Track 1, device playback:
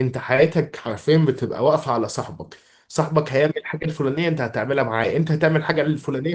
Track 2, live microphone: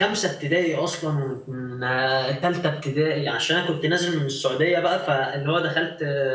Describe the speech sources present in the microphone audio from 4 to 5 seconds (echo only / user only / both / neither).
user only